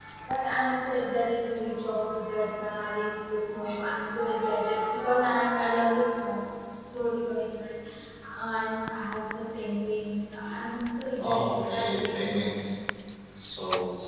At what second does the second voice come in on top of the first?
11.2 s

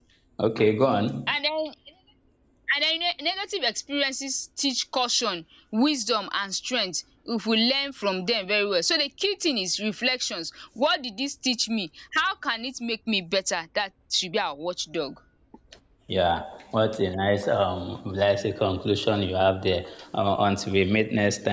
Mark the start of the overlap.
none

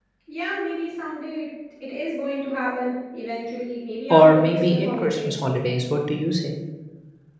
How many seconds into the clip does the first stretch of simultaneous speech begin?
4.1 s

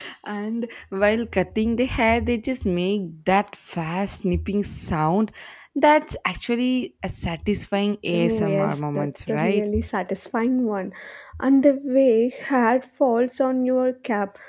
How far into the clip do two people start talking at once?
8.1 s

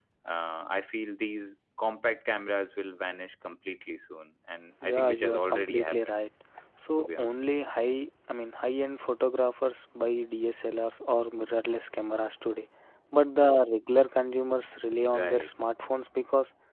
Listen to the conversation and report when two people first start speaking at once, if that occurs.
4.8 s

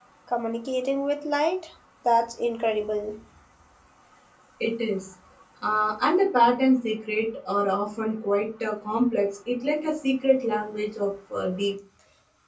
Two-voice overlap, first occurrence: none

